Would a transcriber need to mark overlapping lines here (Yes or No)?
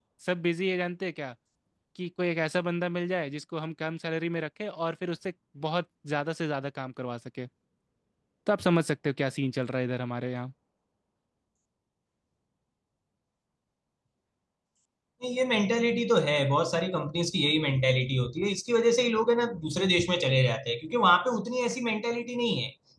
No